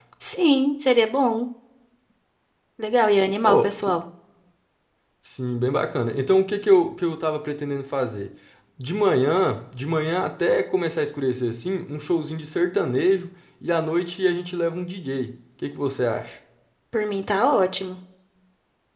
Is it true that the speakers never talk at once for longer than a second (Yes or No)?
Yes